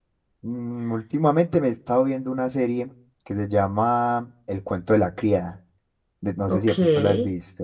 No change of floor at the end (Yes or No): No